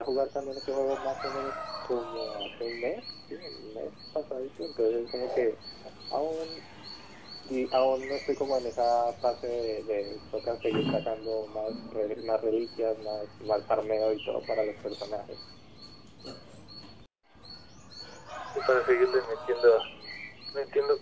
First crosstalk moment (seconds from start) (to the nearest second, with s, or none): none